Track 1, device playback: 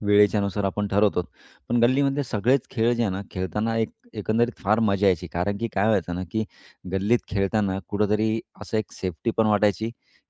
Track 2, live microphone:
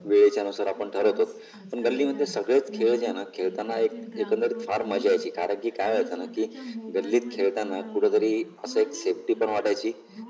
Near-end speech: present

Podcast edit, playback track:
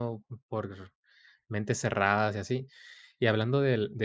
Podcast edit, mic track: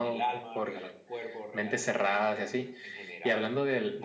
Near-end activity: present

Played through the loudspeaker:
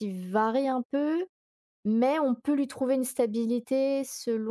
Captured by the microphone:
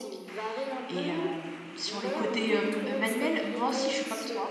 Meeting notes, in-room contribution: present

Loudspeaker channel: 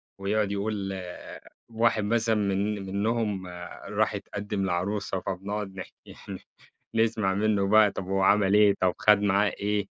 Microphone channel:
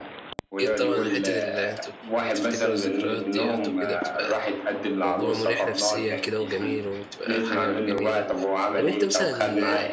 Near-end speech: present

